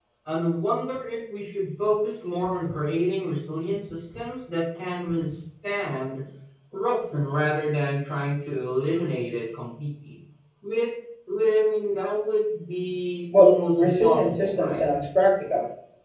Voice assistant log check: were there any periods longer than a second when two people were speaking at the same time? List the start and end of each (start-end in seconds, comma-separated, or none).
13.3-14.8